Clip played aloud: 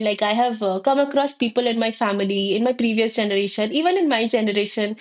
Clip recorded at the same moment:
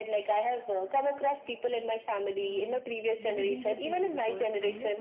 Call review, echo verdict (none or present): present